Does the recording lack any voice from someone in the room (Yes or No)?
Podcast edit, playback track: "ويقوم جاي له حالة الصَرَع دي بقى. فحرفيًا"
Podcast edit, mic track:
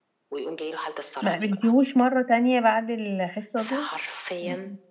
No